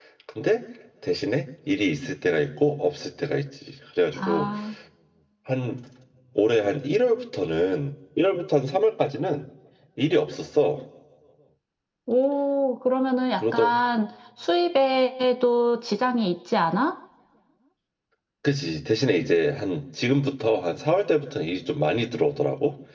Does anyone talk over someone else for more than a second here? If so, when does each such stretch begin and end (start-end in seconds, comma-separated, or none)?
none